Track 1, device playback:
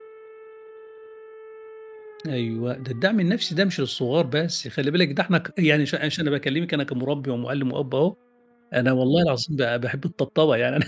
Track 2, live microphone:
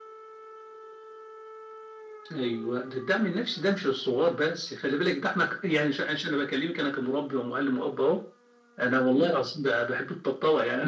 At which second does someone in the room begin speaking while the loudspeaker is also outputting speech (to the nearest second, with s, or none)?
none